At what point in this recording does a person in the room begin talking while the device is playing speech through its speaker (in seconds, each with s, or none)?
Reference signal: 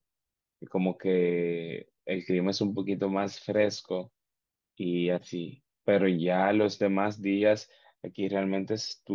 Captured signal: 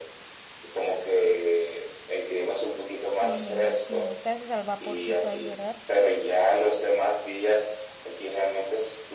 3.0 s